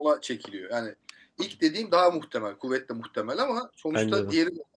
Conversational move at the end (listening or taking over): listening